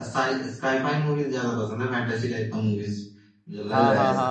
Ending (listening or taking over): taking over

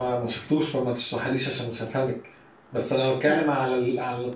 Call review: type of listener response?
listening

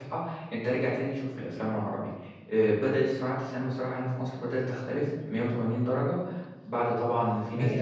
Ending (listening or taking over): taking over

